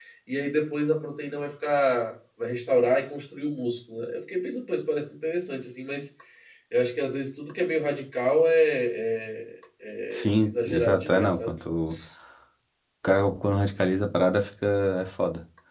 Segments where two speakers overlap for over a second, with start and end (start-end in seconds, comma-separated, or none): 10.1-11.5